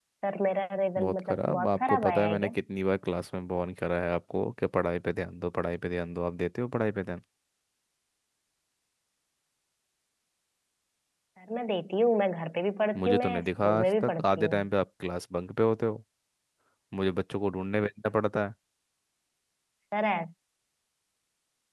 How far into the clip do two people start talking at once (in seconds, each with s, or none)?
1.0 s